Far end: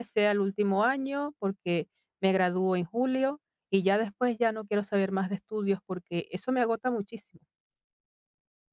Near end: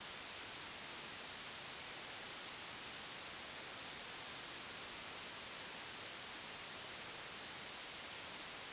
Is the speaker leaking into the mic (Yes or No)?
No